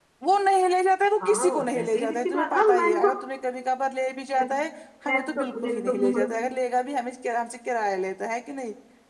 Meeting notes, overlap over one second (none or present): present